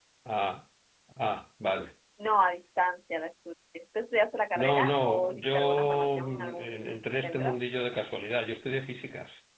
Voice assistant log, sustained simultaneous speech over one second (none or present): present